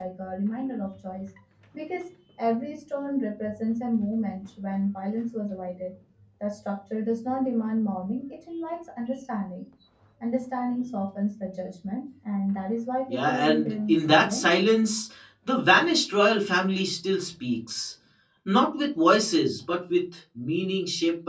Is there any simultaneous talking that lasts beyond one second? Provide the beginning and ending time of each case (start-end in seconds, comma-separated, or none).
13.1-14.5